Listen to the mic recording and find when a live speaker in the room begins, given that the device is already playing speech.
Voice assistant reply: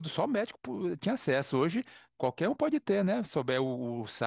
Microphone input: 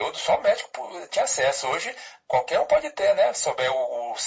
none

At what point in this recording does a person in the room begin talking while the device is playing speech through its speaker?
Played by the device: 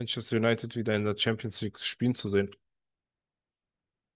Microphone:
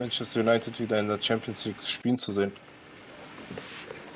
none

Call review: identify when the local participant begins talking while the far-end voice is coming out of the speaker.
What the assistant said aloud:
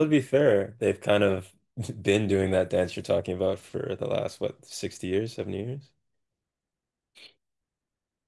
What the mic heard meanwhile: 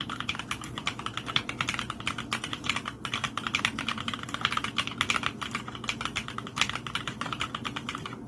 none

